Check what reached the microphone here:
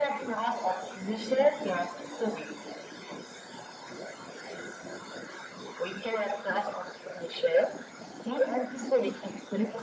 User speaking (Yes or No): No